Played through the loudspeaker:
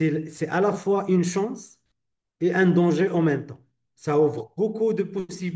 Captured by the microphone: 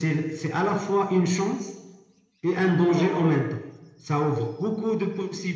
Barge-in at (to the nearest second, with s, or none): 3 s